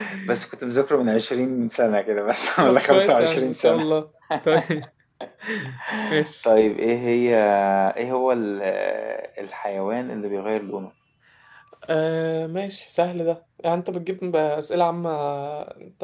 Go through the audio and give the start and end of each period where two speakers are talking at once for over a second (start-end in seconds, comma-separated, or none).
2.6-3.8